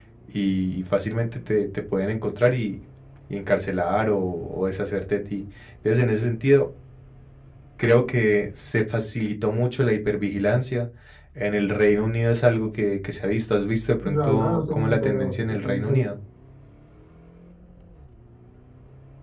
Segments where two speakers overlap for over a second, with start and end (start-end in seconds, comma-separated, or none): 14.0-16.1